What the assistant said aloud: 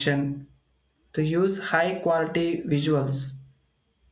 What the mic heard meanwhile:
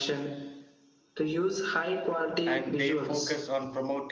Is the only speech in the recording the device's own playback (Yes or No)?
No